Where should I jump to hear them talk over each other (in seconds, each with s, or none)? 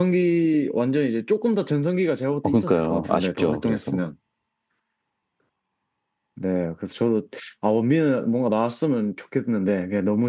2.4 s